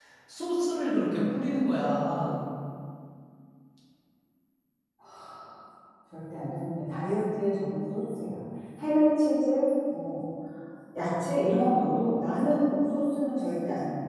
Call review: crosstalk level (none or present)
none